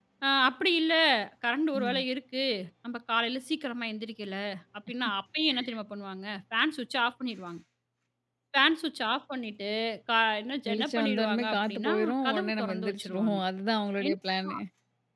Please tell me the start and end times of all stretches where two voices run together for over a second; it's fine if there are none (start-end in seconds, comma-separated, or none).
10.7-13.4